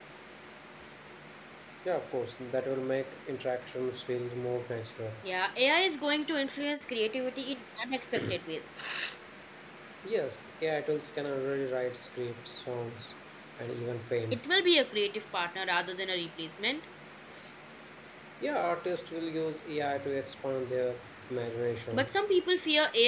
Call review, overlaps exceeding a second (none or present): none